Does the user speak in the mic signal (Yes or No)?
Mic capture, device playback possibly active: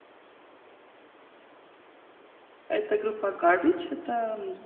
Yes